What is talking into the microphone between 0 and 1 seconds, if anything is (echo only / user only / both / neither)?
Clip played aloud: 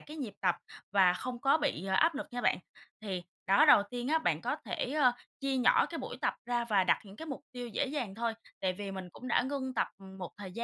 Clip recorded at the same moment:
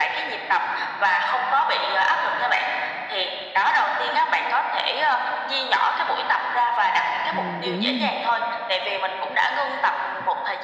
echo only